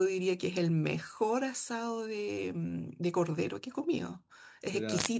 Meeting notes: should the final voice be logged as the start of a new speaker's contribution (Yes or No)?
No